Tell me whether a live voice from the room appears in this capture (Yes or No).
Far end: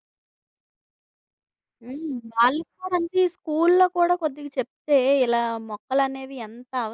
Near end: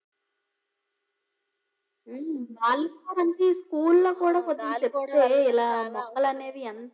Yes